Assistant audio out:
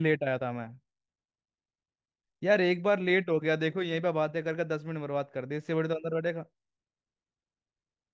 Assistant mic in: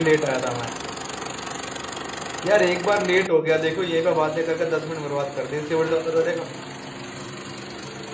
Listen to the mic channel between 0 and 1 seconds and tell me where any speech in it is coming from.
echo only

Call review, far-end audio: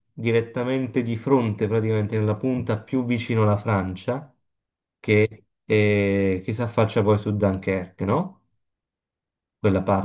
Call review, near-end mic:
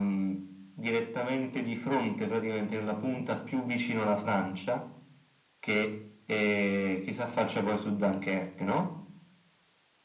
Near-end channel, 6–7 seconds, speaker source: echo only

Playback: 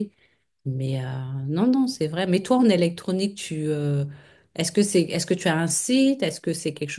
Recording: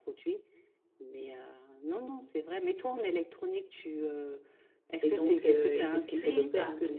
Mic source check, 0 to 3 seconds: echo only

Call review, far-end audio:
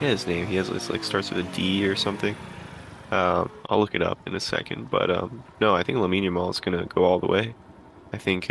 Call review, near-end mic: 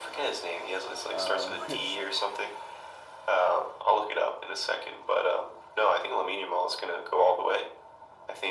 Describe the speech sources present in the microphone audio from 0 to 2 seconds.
both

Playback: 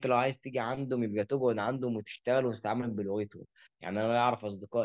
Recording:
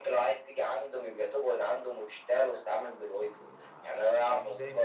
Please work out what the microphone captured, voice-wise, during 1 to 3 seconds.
echo only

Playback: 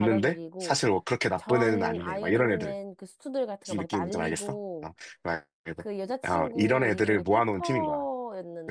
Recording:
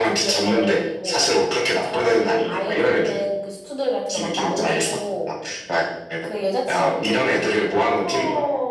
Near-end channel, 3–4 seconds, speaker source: echo only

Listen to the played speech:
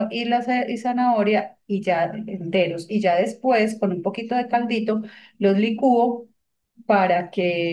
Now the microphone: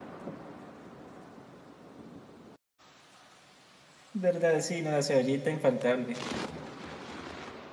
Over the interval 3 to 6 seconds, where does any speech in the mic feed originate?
user only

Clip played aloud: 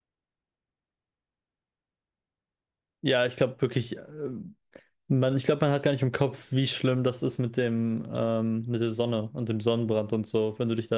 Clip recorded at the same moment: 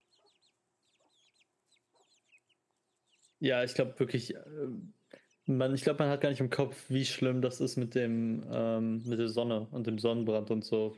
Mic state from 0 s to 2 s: neither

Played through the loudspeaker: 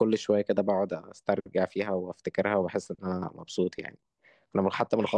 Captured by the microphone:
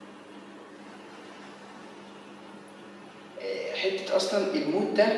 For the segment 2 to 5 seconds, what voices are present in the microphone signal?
user only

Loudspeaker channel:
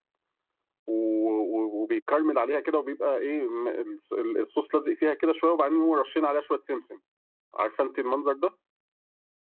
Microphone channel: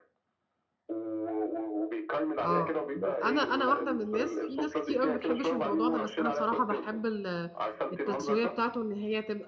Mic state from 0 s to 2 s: echo only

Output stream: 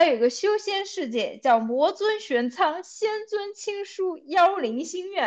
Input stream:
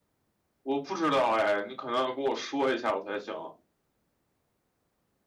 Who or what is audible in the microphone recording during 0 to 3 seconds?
user only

